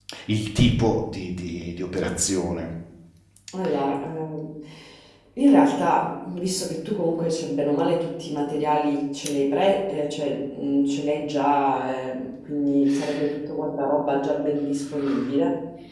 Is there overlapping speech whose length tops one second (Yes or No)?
No